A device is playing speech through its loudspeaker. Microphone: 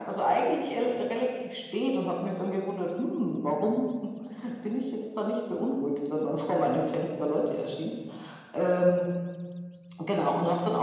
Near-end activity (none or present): none